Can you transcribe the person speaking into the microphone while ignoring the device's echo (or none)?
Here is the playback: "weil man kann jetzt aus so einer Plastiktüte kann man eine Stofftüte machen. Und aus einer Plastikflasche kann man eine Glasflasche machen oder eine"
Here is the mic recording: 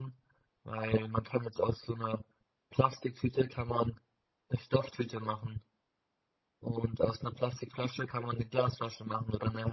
none